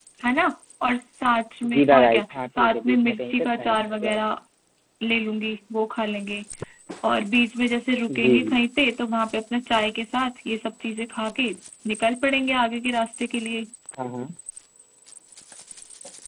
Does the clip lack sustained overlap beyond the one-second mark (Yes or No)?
No